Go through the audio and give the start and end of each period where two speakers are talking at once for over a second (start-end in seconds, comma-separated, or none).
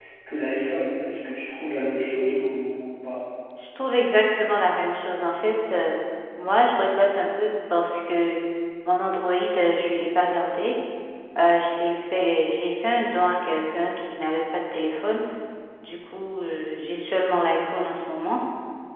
none